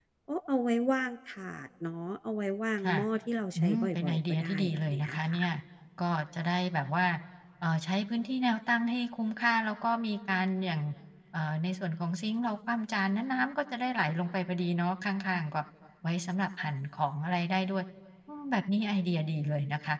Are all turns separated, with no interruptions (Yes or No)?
No